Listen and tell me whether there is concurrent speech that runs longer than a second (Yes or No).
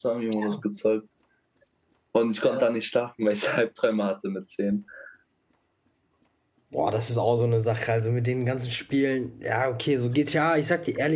No